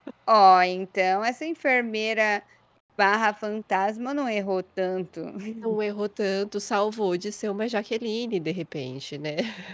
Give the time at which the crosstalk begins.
none

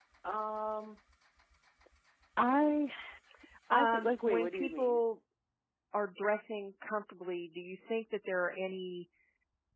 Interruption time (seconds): 3.7 s

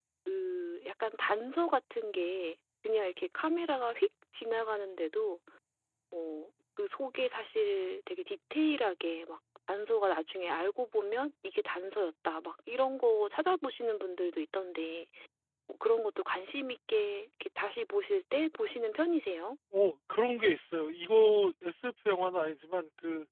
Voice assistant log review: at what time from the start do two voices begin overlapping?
none

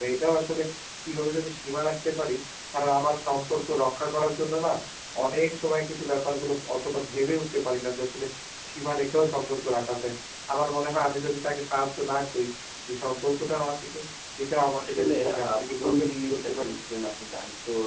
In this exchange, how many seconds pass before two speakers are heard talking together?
14.8 s

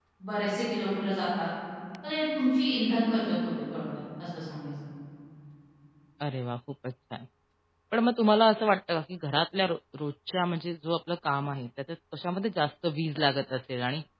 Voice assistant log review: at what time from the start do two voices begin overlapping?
none

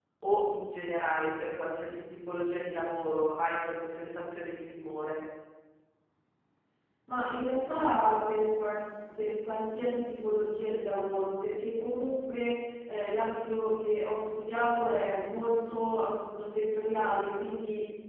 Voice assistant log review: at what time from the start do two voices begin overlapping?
none

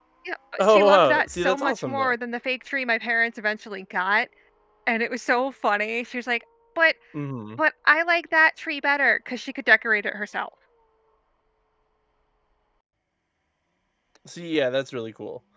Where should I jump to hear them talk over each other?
0.6 s

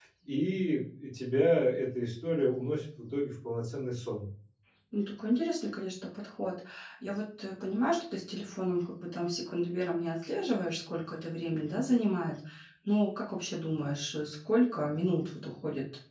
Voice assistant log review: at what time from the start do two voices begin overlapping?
none

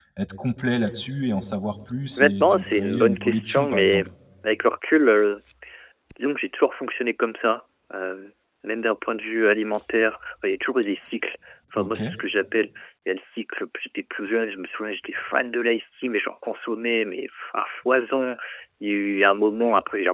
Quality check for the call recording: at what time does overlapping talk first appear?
2.2 s

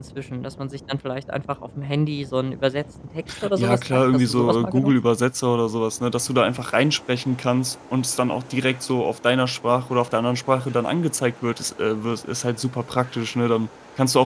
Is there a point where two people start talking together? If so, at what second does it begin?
3.6 s

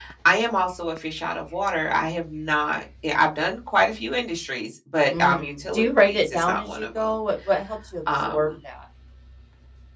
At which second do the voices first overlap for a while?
5.1 s

